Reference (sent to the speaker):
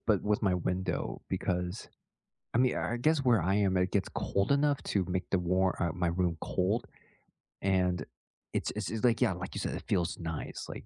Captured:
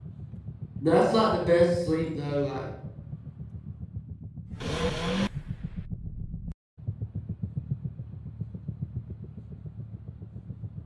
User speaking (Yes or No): Yes